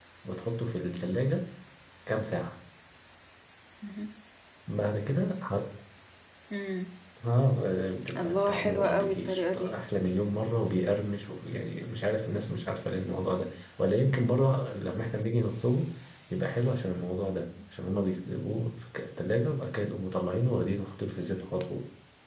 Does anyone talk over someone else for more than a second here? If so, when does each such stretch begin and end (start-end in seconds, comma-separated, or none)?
8.2-9.8